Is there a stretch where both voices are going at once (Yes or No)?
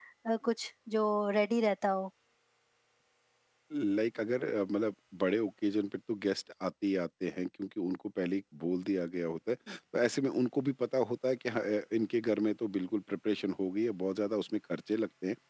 No